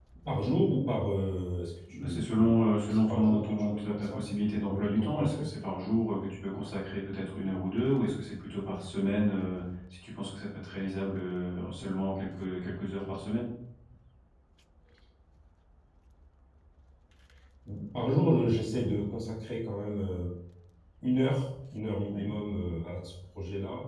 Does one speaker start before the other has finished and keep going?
Yes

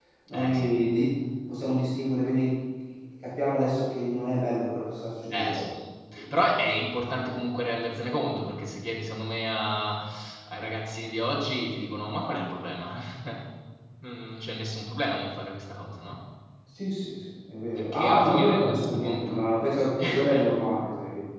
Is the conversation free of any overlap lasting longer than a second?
No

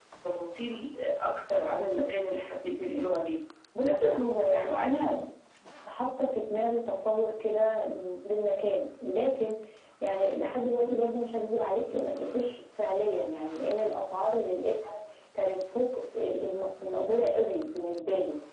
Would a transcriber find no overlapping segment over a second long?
No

